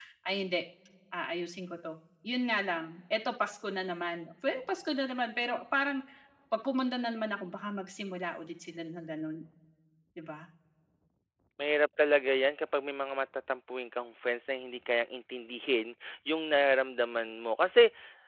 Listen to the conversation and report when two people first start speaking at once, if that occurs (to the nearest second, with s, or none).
none